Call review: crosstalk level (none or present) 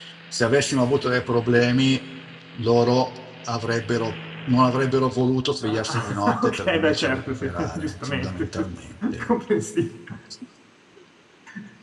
present